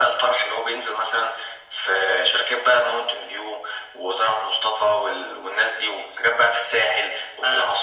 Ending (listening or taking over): taking over